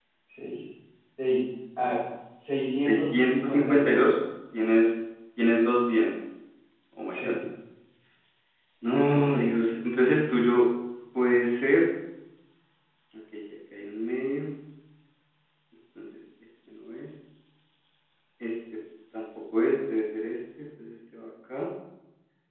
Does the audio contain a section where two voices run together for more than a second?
Yes, from 2.8 s

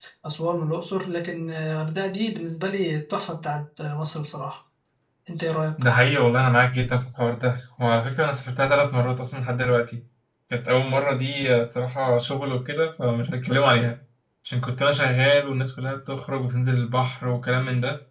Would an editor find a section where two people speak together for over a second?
No

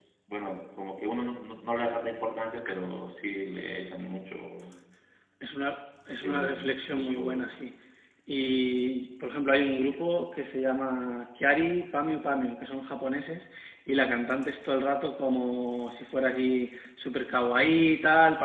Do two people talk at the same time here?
Yes, from 6.2 s

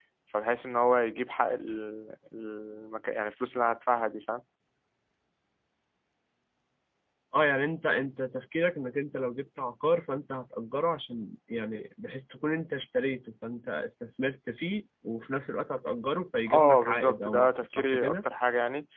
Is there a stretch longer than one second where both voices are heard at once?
Yes, from 16.5 s

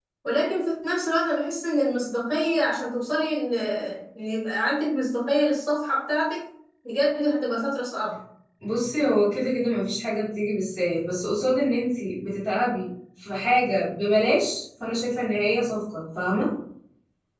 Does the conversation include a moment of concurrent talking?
No

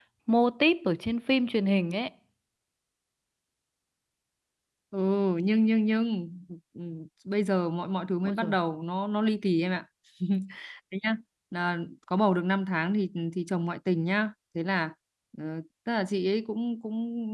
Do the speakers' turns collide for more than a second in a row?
No

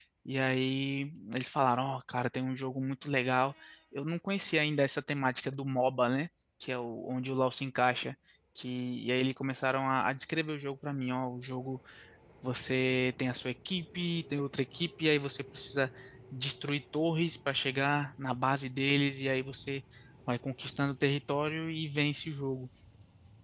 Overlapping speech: No

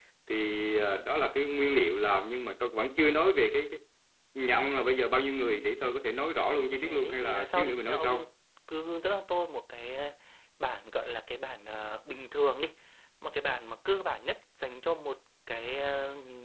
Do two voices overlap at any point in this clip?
Yes, from 6.8 s

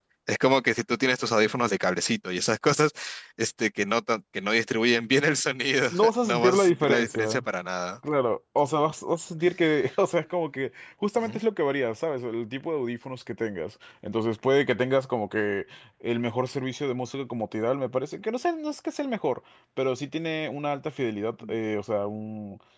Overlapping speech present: Yes, from 5.9 s

